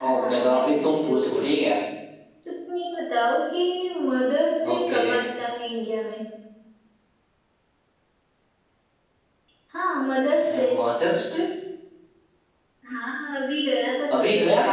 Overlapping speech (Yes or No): Yes